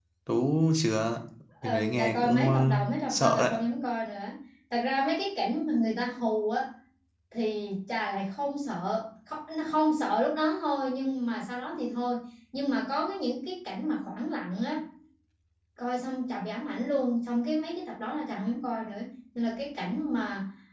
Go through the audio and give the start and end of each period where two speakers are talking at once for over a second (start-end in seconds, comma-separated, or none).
1.6-3.6